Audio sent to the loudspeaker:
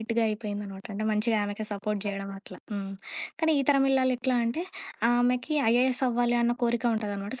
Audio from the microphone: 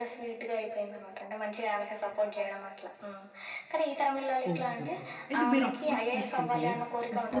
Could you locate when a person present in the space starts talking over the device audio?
4.5 s

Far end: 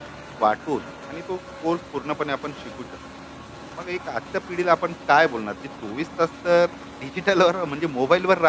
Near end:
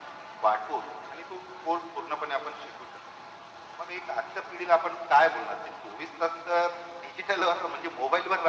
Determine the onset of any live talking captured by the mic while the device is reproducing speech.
none

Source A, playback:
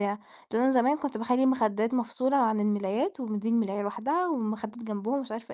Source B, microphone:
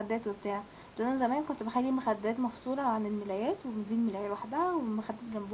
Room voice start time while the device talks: none

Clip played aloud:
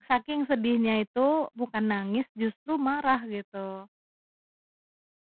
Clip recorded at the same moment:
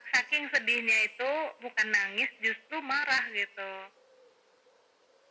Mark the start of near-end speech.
none

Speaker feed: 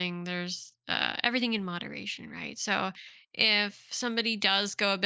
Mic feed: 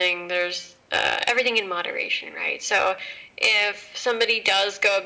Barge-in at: none

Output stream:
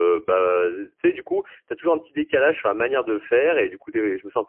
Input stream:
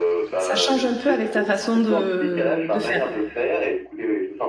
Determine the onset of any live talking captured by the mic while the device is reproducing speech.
0.4 s

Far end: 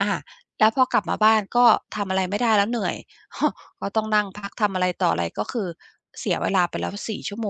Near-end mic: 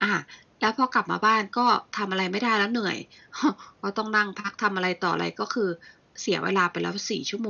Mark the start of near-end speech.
none

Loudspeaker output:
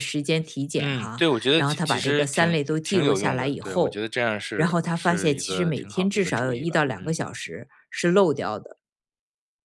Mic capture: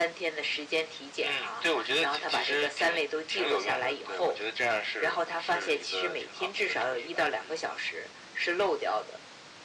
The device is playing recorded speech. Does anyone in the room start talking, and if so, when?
none

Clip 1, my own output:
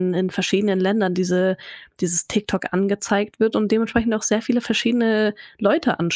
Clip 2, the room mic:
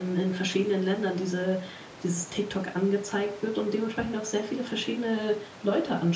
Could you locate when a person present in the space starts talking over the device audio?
none

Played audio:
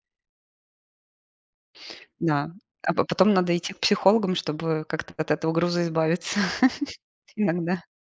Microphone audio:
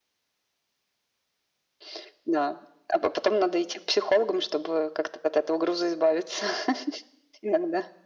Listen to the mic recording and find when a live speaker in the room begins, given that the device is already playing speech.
none

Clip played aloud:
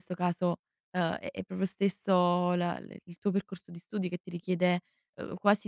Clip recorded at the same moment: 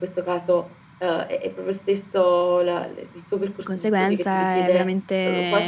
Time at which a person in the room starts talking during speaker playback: 3.5 s

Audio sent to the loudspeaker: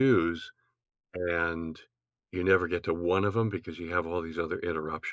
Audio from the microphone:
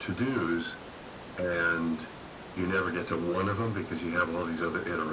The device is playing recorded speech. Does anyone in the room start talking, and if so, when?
none

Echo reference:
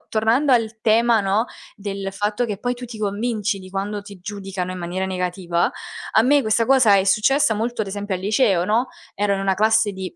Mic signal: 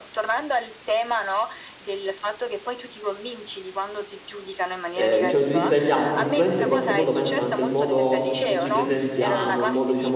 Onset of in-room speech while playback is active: 4.9 s

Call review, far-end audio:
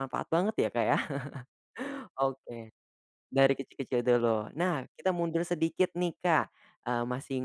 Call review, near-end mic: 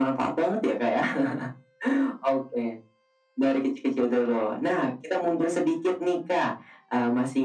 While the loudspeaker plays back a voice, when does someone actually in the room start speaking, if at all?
none

